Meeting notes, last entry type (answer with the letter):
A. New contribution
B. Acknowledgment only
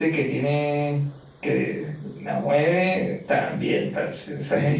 B